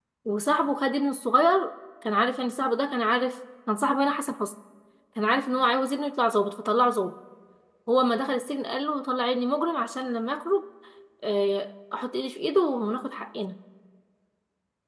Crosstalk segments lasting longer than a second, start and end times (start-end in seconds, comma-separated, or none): none